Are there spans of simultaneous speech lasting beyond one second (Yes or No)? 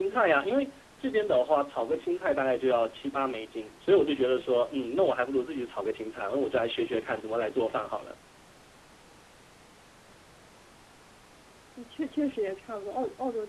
No